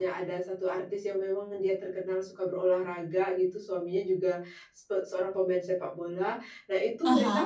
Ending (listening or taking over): listening